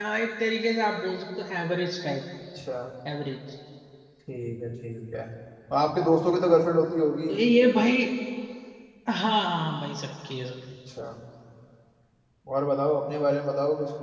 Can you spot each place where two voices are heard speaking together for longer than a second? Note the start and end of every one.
none

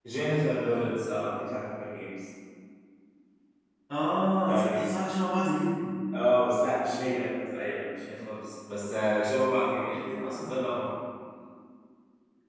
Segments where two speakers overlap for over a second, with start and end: none

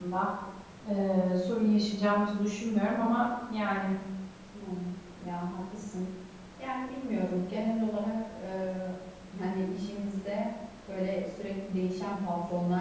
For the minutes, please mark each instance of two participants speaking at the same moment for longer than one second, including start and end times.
none

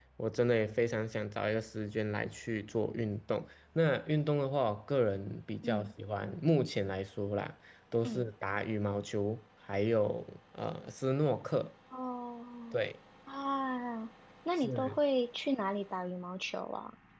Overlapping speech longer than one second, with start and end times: none

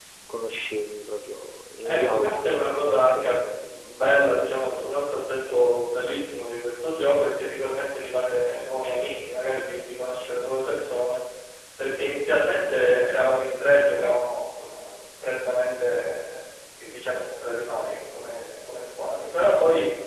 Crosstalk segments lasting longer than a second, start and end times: 1.9-3.4

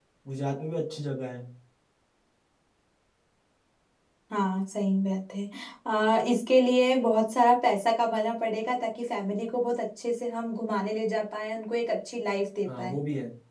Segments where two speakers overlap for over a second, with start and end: none

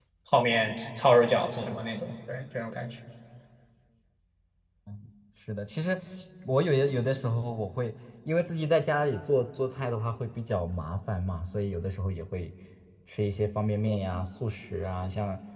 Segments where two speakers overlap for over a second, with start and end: none

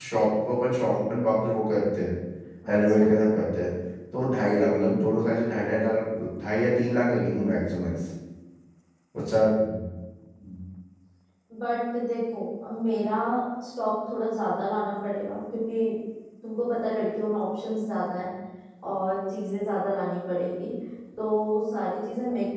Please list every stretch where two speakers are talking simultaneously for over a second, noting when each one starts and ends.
none

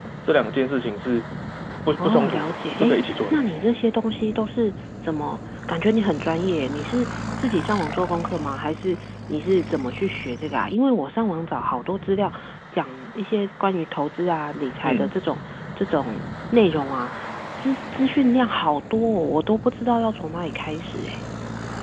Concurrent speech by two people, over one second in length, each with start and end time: 2.0-3.4

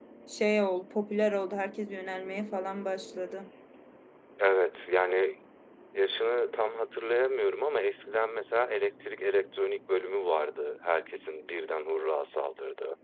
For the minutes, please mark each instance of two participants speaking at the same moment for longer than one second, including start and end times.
none

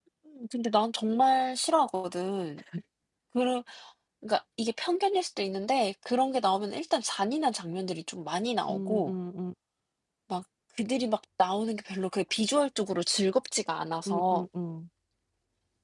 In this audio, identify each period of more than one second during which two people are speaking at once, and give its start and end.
none

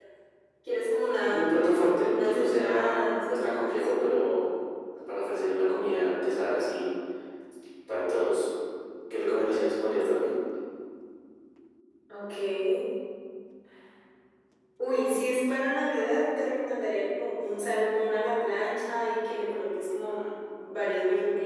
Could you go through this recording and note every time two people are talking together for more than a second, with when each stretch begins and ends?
2.0-3.7

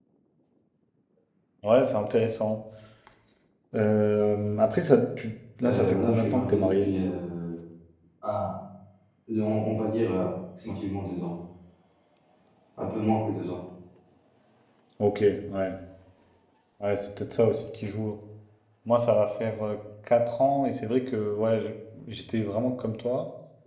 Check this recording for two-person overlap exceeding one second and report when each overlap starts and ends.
5.6-6.9

